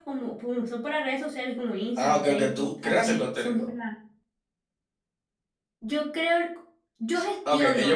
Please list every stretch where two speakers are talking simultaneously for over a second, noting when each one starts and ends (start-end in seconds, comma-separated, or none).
2.0-3.6